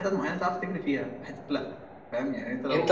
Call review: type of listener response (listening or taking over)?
taking over